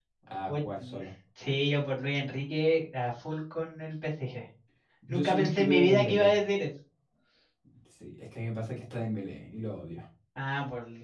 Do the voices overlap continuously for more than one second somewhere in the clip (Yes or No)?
Yes